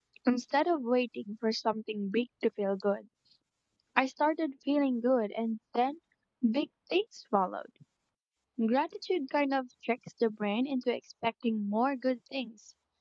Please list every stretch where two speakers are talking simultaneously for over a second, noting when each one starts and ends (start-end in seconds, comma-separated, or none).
none